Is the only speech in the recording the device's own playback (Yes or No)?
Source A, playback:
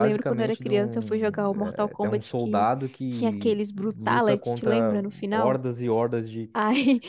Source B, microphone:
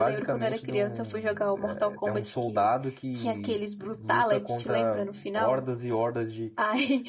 Yes